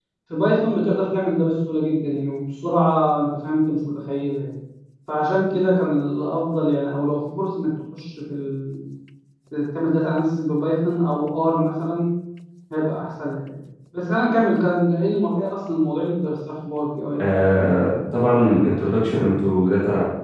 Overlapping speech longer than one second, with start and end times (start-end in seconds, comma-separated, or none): none